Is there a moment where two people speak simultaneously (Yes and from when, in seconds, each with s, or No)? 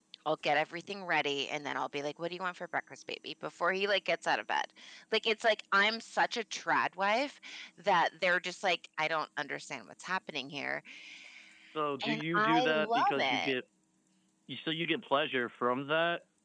Yes, from 12.1 s